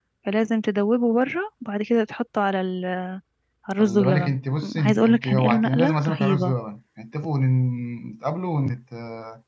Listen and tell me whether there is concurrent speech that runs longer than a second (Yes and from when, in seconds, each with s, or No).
Yes, from 3.8 s